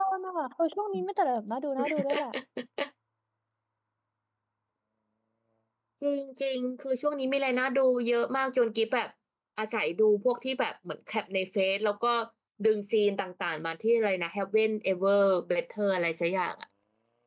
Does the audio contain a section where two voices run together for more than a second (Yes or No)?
No